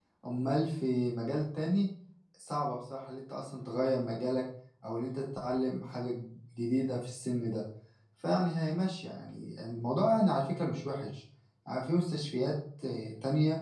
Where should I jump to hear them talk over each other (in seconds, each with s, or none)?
none